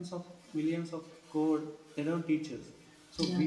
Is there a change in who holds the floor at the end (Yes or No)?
No